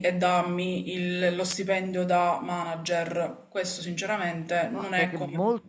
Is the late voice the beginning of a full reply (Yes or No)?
Yes